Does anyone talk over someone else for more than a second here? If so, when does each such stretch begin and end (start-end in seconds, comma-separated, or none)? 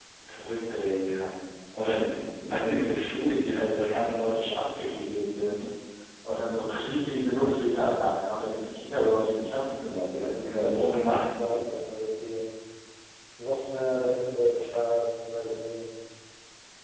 10.1-11.6